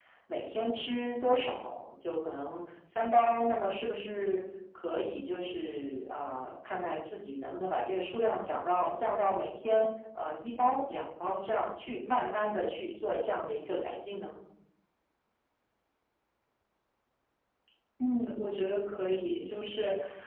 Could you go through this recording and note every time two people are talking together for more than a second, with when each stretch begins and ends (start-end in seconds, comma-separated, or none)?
none